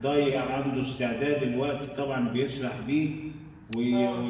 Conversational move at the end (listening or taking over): listening